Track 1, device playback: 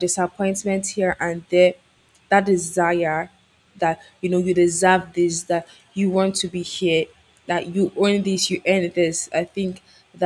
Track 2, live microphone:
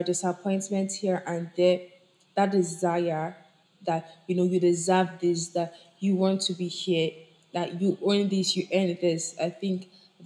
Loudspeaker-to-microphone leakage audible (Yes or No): Yes